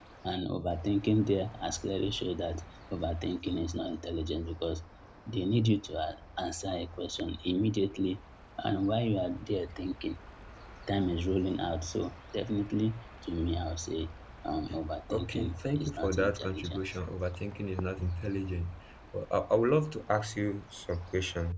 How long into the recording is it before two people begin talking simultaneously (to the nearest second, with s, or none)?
15 s